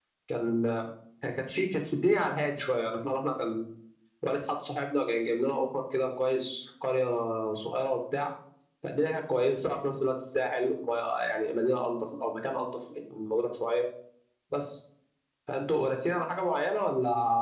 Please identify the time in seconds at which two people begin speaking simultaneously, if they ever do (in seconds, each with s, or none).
none